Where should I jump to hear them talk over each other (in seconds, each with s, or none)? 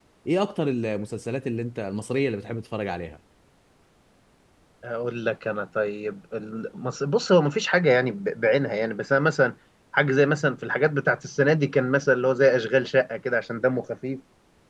none